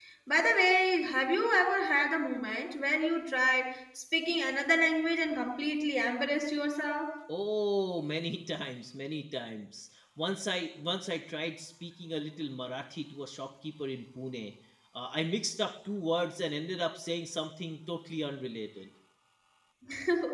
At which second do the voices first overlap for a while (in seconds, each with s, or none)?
none